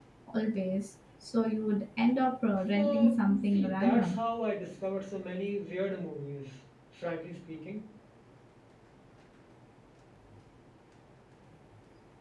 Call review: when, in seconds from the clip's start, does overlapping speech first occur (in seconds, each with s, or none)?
2.8 s